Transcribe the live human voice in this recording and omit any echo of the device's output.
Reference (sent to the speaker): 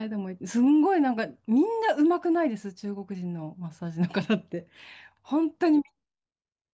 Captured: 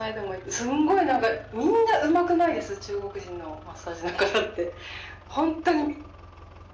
none

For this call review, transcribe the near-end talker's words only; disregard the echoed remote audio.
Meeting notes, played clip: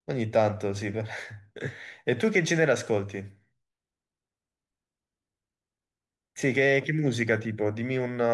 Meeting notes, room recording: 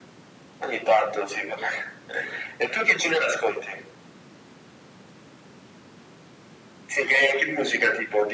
none

